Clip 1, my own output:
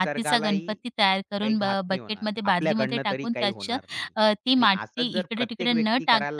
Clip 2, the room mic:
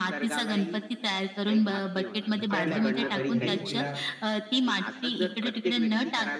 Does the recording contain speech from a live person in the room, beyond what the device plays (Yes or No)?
Yes